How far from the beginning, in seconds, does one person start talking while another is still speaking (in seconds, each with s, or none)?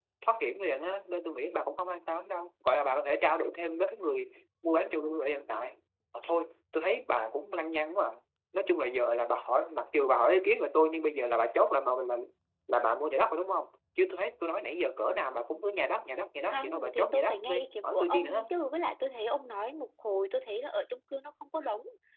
16.5 s